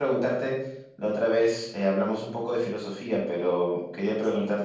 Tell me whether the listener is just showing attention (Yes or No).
Yes